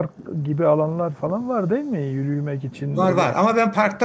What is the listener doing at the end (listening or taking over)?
taking over